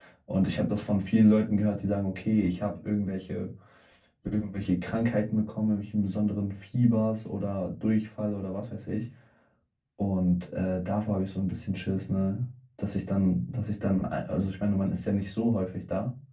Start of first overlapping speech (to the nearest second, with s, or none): none